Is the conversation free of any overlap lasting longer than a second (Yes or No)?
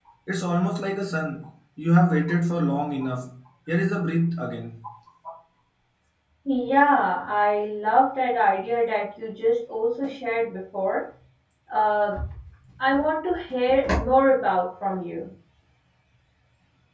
Yes